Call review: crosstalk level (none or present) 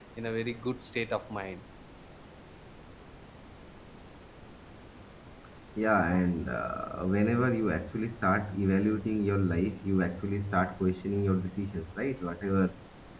none